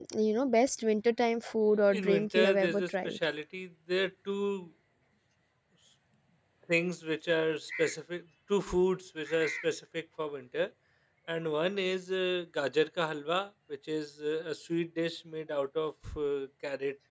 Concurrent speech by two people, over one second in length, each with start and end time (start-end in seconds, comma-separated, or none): 1.9-3.2